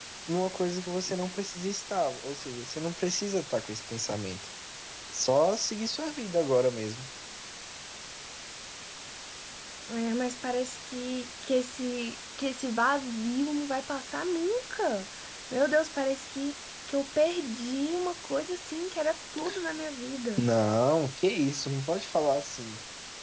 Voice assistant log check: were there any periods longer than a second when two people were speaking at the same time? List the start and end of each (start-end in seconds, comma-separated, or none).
none